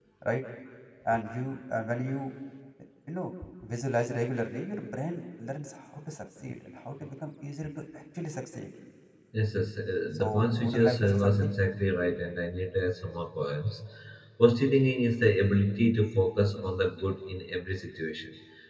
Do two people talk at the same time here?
Yes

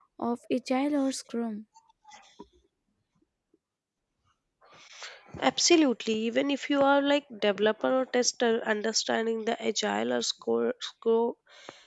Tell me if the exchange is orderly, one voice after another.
Yes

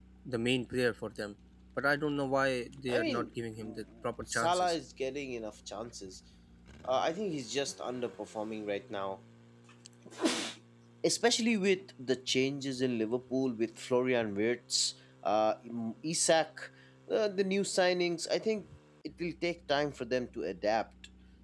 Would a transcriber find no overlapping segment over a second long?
Yes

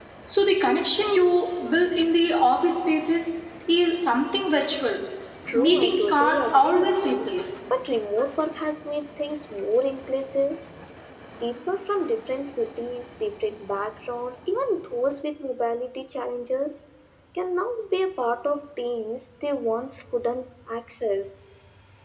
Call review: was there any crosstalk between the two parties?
Yes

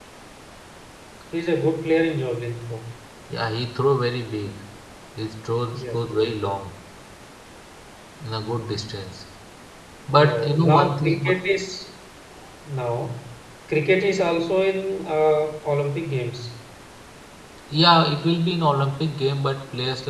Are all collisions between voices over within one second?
No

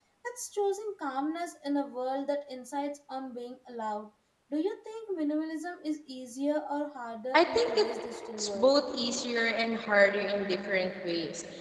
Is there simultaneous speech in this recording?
Yes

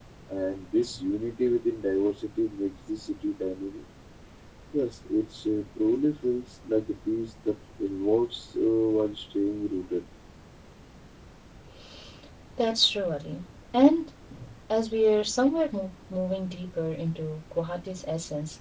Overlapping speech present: No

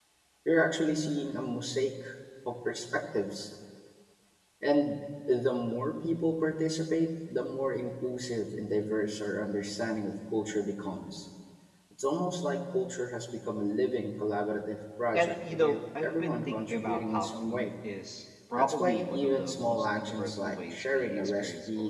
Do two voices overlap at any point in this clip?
Yes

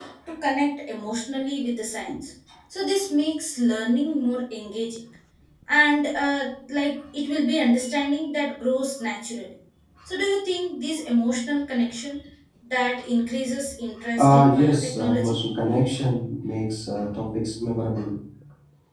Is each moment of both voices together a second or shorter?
No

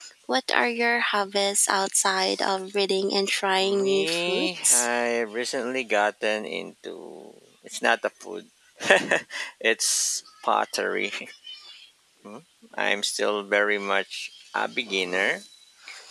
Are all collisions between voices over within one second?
No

